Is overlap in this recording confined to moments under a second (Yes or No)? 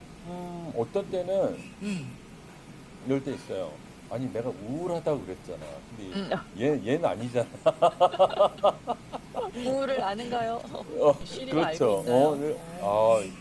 No